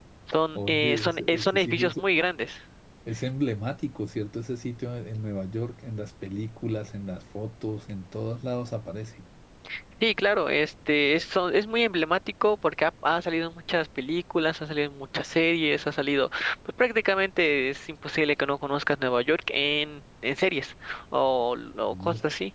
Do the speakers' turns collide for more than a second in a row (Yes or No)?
Yes